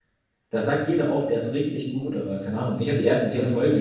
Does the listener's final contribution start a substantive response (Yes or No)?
No